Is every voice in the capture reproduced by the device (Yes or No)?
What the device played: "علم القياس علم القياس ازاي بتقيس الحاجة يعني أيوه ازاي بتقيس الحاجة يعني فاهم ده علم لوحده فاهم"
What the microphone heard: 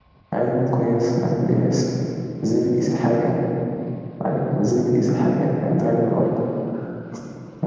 Yes